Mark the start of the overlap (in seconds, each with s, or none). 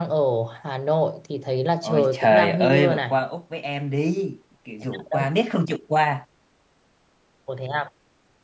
1.8 s